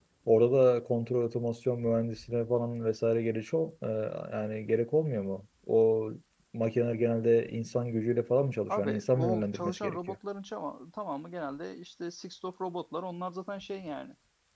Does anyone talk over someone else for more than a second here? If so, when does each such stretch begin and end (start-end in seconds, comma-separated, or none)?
8.7-10.2